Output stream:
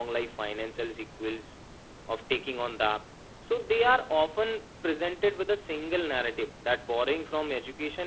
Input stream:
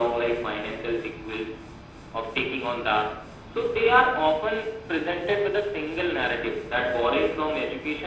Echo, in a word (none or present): present